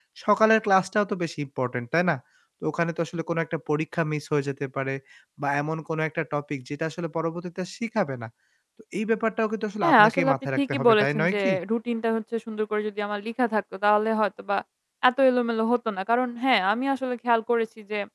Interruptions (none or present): present